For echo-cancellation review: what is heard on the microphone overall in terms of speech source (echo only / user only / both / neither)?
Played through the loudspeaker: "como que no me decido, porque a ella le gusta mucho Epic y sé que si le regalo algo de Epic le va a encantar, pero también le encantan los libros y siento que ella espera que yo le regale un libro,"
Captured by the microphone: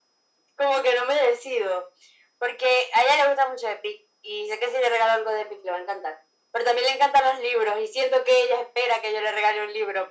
echo only